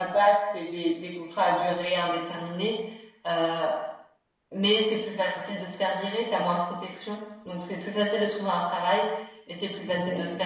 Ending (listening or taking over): listening